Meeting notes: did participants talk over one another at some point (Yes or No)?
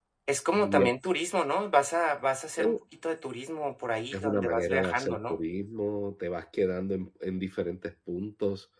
Yes